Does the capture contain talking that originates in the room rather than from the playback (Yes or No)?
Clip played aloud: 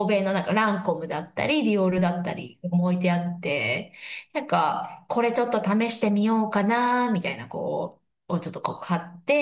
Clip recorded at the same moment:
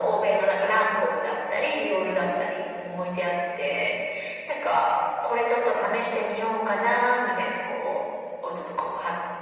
No